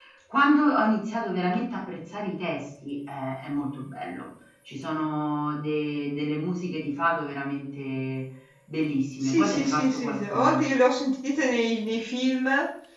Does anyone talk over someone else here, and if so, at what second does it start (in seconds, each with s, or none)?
9.2 s